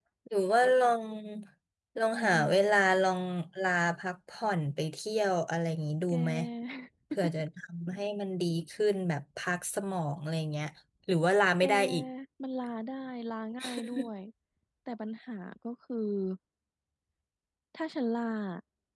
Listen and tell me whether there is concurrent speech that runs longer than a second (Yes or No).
No